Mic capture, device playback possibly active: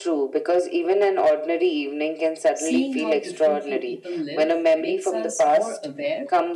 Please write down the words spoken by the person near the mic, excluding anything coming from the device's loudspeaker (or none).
seeing how differently people live makes us more aware